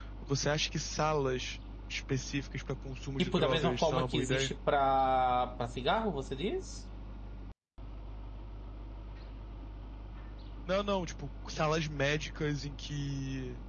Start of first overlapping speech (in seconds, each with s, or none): 3.2 s